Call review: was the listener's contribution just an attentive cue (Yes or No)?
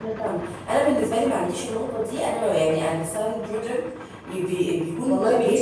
No